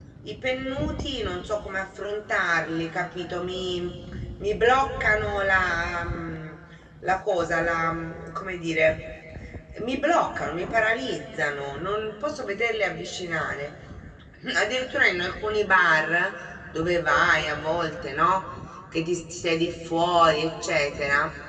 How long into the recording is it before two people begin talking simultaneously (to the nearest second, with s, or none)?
none